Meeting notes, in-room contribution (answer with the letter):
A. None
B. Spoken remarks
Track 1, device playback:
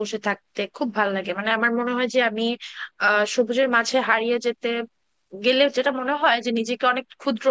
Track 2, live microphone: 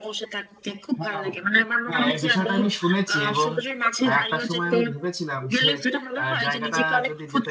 B